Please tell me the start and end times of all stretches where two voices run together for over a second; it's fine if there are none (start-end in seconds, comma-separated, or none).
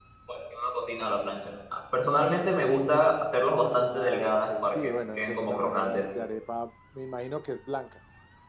3.6-6.0